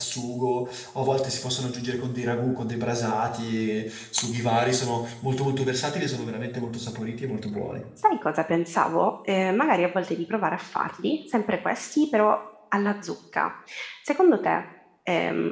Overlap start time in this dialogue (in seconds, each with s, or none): none